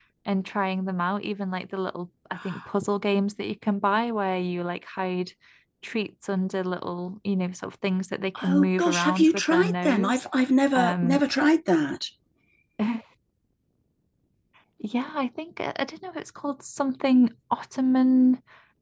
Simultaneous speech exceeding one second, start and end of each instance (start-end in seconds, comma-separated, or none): 8.5-10.2